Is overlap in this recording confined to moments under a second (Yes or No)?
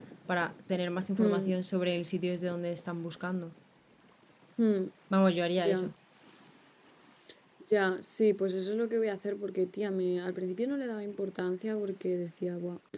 Yes